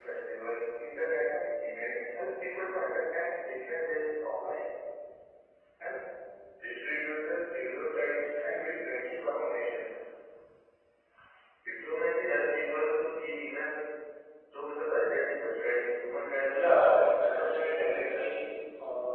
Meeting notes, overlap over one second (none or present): present